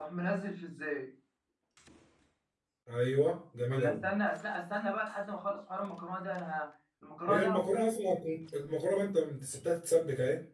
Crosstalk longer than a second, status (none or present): none